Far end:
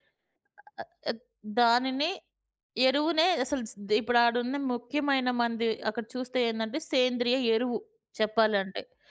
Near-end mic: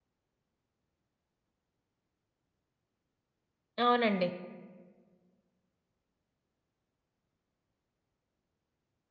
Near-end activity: present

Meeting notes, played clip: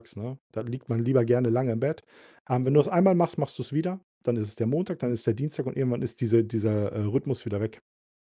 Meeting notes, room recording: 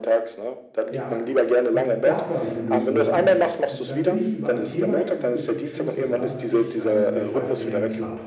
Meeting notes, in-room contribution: present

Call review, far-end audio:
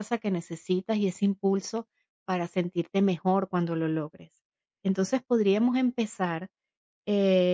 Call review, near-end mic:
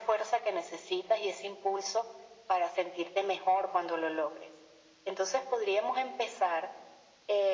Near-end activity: none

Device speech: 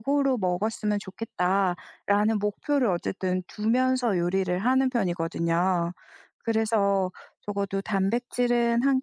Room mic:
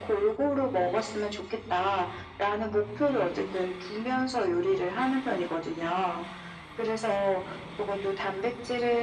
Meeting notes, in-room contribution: none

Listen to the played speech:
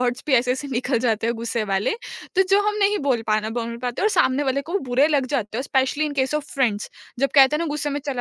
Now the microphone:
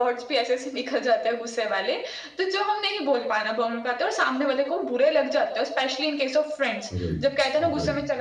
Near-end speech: present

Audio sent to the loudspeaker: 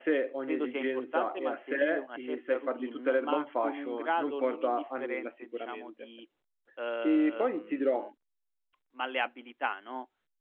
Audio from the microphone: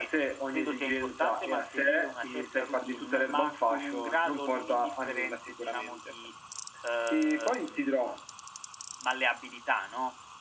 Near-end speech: none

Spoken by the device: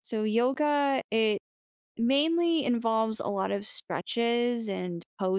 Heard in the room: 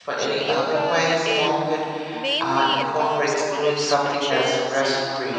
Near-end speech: present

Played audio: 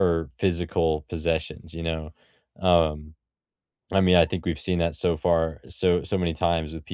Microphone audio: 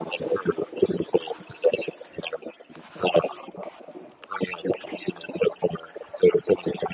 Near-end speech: none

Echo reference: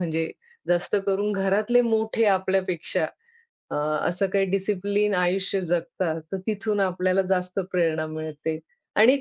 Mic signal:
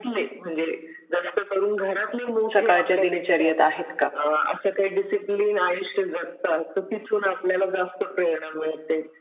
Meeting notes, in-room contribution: present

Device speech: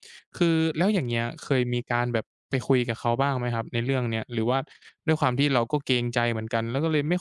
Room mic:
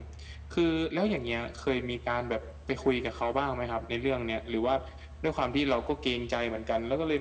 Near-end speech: none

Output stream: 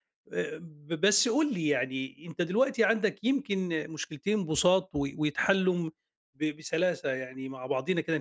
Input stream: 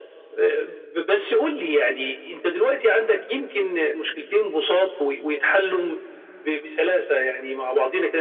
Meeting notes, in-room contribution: none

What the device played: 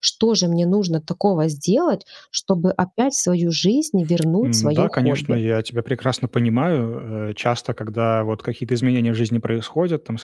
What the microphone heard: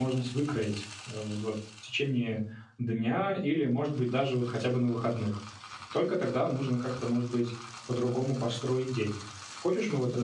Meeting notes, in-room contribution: present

